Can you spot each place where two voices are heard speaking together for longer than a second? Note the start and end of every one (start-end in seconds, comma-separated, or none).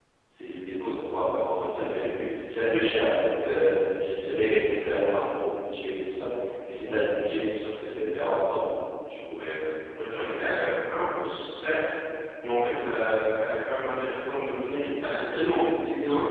none